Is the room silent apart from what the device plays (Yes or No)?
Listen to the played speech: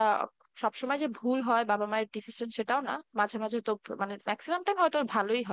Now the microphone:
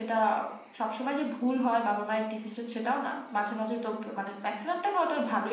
Yes